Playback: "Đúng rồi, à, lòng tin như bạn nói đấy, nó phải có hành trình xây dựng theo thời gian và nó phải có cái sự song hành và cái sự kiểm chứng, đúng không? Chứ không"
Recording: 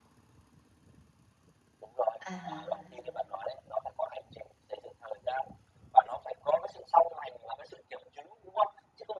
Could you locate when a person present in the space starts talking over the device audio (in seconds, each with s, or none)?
2.2 s